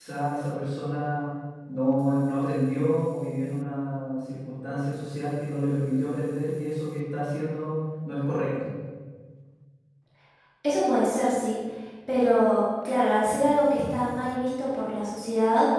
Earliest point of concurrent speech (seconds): none

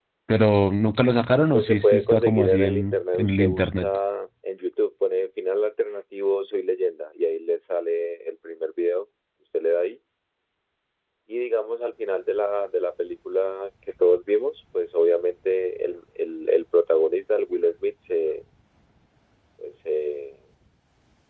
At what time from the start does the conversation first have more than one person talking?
1.5 s

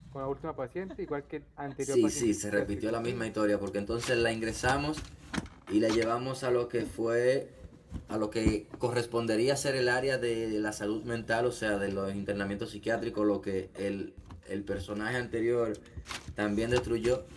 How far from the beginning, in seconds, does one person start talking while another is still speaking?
1.8 s

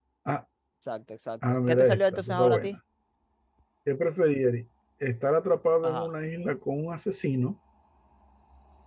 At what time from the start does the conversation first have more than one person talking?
1.5 s

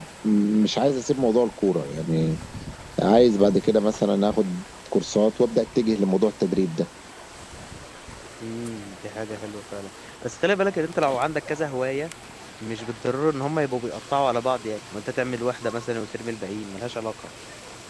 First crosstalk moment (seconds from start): none

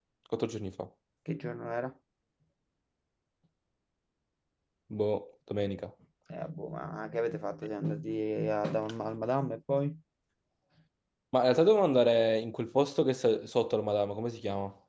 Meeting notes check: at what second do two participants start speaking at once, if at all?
none

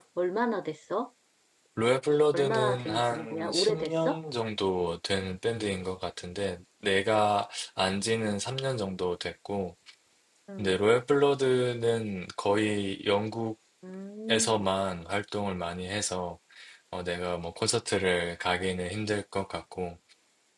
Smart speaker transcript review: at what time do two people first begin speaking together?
2.3 s

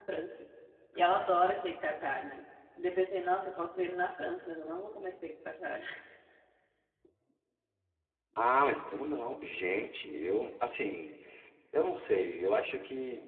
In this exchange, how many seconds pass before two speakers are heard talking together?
none

